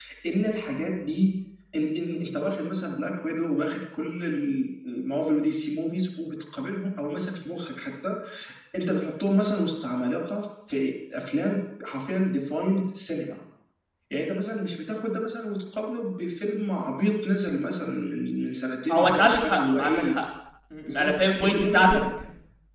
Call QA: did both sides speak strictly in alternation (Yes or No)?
No